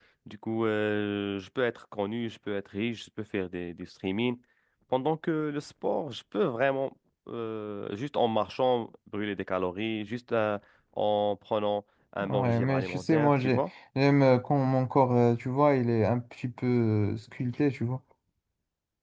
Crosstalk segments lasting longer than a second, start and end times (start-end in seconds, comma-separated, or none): 12.3-13.6